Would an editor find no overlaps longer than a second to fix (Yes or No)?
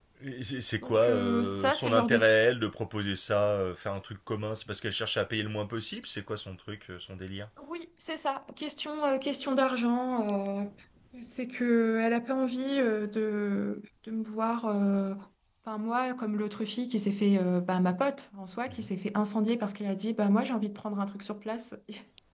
No